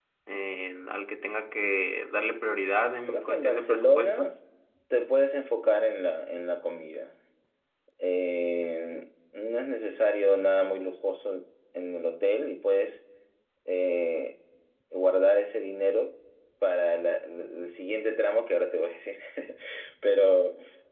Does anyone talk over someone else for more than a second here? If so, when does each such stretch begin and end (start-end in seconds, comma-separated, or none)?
3.1-4.3